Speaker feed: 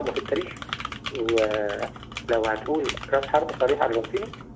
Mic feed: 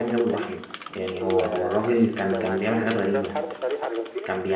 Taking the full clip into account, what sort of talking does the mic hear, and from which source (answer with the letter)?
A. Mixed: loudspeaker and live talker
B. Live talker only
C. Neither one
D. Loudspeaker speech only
A